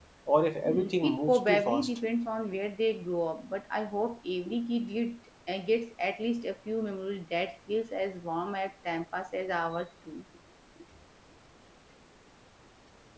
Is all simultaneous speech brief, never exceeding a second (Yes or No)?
No